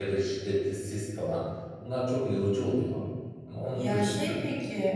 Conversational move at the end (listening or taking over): taking over